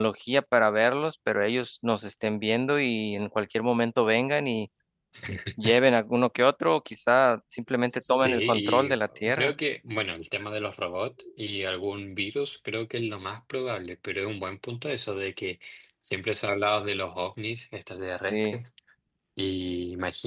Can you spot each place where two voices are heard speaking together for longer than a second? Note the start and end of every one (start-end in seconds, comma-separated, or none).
8.1-9.5